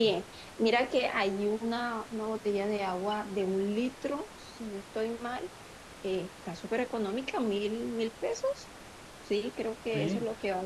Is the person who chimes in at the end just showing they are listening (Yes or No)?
No